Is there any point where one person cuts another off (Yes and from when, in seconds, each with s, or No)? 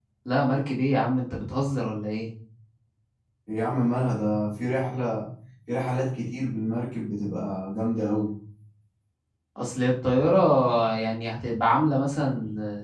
No